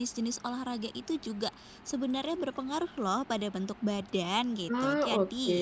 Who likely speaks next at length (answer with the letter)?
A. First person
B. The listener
A